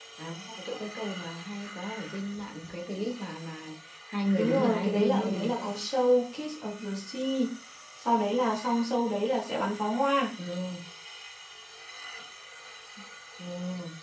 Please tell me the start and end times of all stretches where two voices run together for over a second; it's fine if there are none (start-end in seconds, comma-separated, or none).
4.4-5.8